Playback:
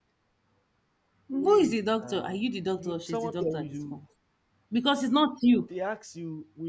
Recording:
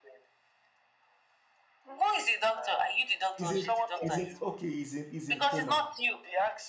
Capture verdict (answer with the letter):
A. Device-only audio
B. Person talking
B